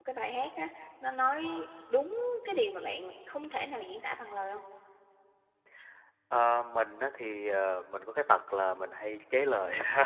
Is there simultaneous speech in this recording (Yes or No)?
No